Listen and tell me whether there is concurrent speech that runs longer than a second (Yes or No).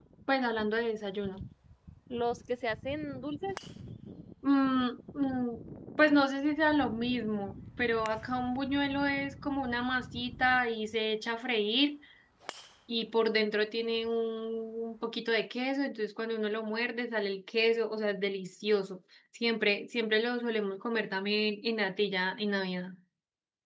No